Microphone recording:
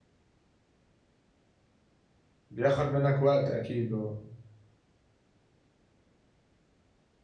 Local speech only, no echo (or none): بياخُد منّك وقت أكيد آه،